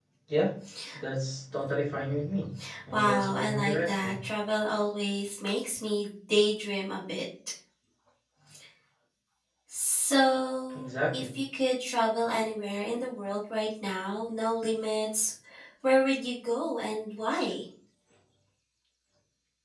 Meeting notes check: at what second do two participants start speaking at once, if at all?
3 s

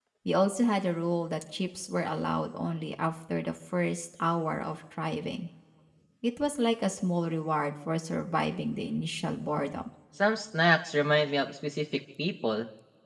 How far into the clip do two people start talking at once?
none

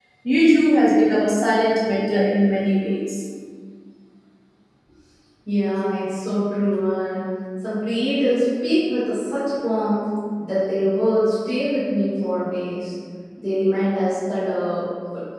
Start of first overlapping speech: none

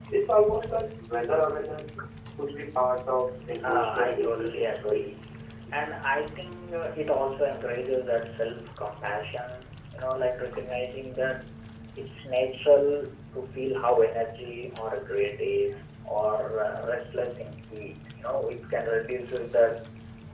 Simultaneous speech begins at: 4 s

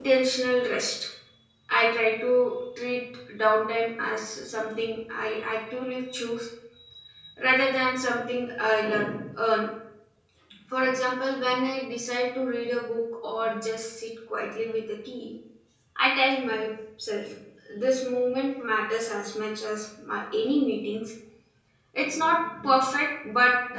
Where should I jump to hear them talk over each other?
none

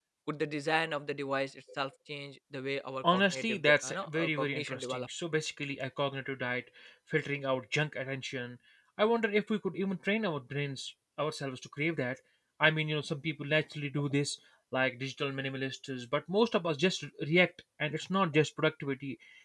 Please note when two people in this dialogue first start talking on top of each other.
3 s

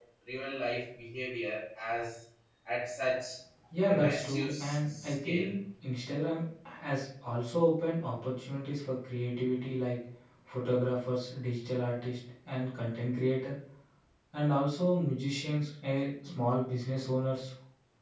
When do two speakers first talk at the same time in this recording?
4 s

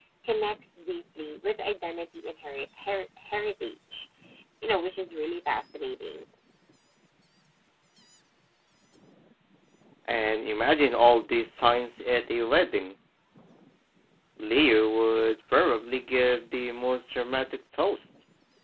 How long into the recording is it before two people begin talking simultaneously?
none

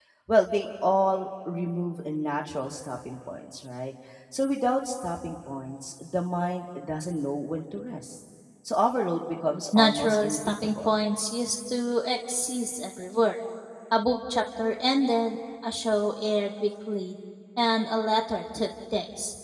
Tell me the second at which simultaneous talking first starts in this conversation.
10 s

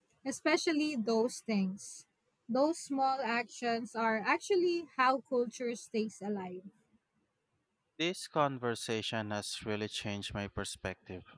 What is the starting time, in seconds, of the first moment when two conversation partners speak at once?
none

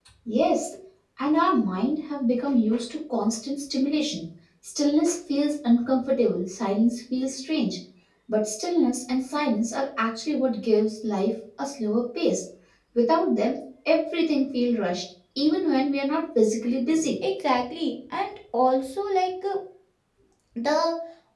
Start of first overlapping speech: none

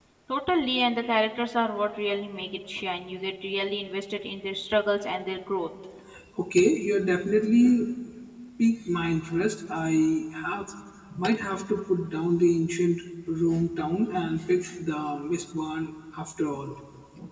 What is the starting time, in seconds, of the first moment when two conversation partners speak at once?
none

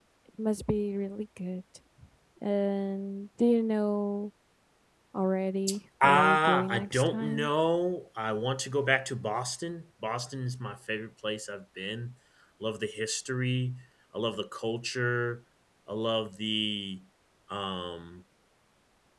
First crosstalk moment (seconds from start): 6 s

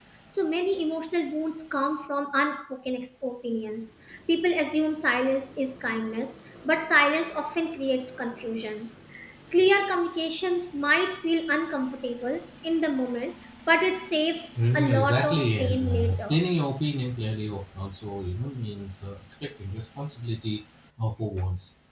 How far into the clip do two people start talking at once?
15 s

